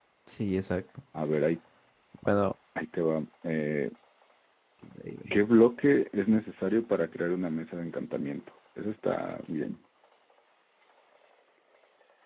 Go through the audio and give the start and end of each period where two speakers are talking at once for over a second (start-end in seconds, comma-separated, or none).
none